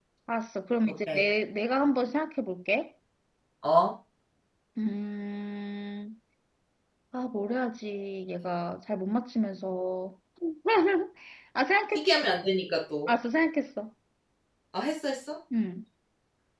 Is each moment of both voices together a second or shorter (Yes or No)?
Yes